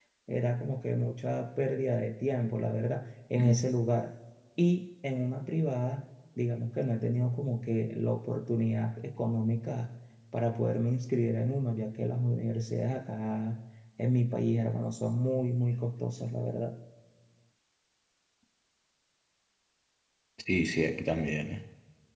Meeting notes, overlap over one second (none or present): none